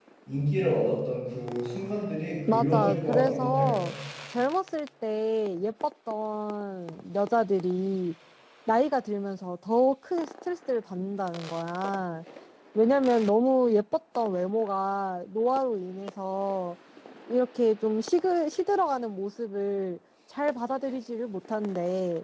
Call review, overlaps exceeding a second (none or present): present